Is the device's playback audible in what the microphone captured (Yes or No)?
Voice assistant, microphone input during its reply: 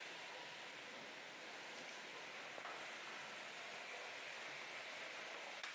No